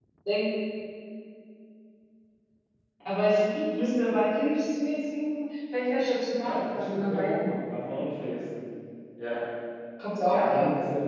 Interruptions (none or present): present